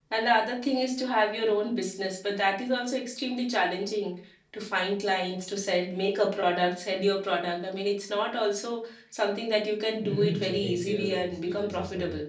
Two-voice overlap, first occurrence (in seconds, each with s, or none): 10.0 s